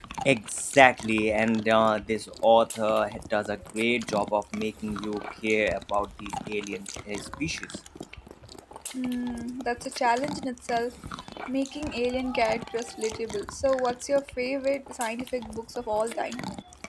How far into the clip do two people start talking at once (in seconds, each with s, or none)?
none